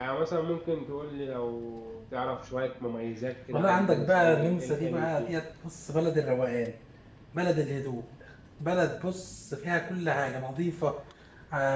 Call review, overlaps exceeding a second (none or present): present